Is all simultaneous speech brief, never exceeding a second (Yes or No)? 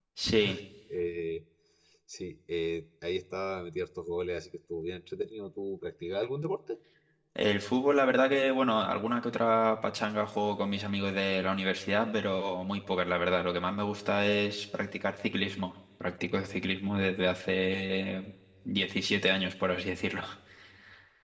Yes